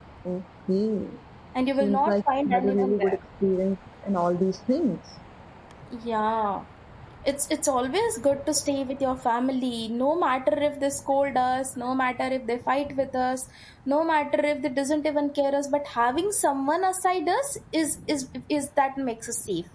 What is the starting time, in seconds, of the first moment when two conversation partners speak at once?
2 s

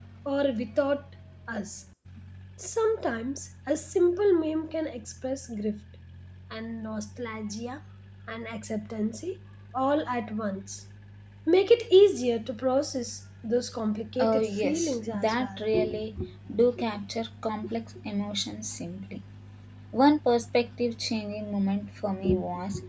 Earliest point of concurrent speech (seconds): 14 s

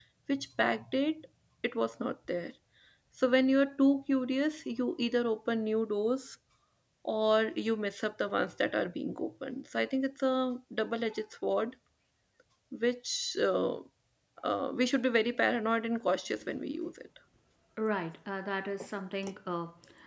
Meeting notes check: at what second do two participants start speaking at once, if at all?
none

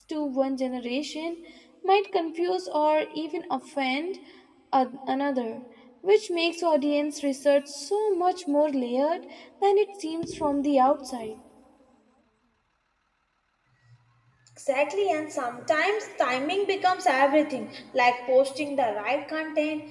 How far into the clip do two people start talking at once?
none

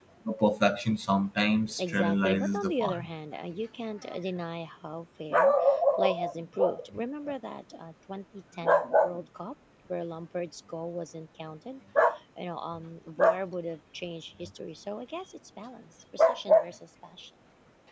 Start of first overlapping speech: 2 s

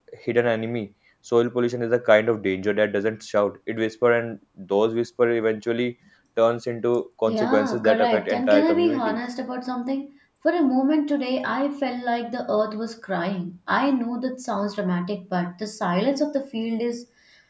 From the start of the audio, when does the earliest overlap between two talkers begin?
7 s

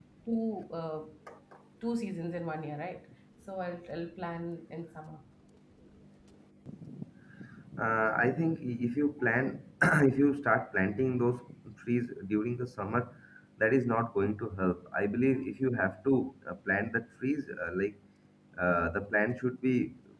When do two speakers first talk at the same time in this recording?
none

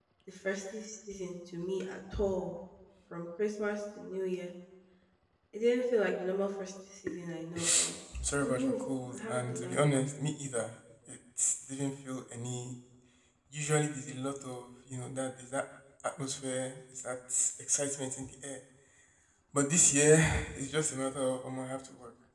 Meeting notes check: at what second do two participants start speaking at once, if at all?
8 s

